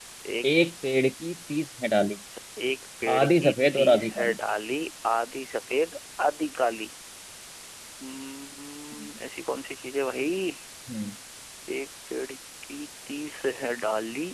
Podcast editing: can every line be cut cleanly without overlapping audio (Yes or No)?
No